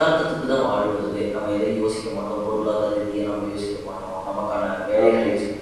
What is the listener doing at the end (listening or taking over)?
listening